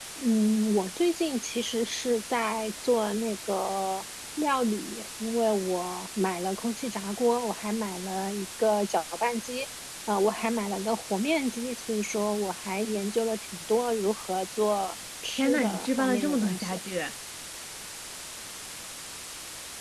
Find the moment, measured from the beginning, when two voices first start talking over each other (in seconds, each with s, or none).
15.3 s